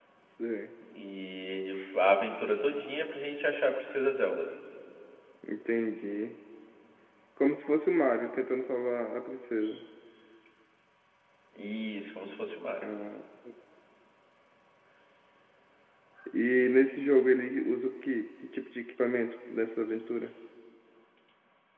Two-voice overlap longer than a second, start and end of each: none

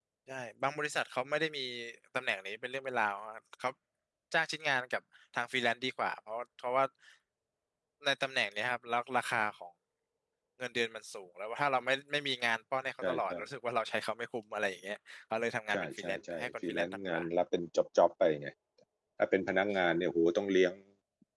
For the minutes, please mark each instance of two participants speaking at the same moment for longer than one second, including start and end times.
15.7-17.2

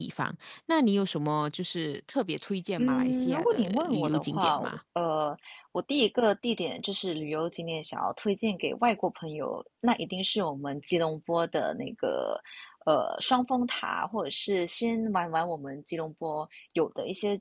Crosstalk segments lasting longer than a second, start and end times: 2.8-4.8

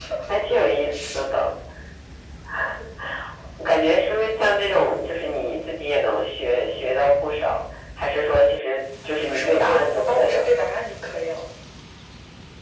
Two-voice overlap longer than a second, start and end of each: 9.2-10.4

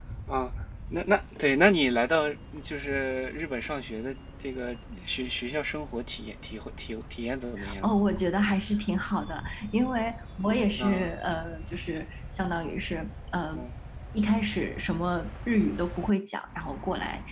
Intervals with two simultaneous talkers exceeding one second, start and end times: none

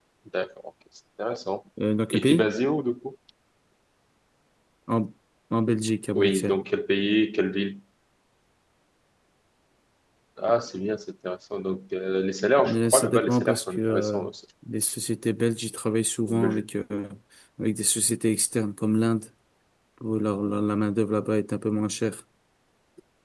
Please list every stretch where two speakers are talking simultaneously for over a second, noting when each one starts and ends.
12.7-14.2

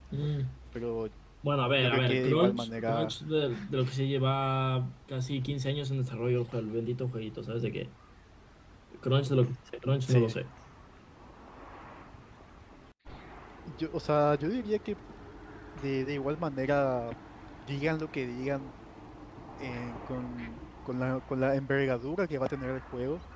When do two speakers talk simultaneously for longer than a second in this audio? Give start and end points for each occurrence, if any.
1.8-3.2

